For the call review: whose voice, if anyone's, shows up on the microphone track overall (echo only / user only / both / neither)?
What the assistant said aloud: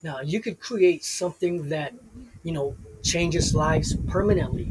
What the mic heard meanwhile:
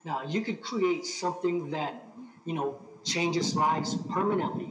echo only